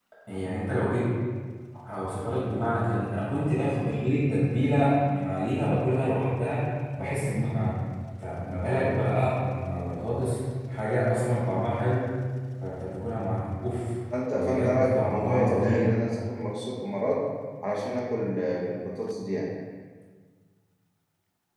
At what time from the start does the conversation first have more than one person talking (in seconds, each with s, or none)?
14.4 s